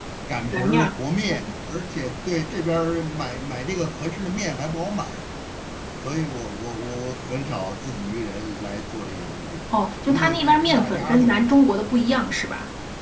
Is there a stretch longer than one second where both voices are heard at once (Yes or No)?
Yes